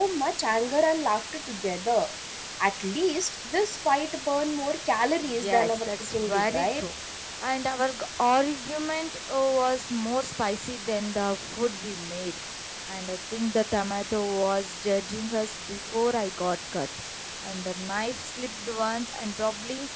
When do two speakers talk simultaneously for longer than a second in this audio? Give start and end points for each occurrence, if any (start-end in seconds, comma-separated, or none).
5.2-6.8